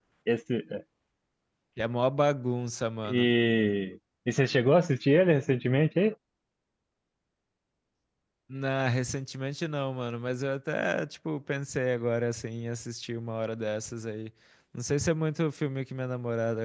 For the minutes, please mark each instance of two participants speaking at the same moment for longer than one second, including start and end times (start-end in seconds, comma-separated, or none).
none